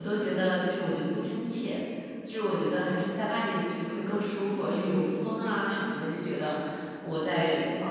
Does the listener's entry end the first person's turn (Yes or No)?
No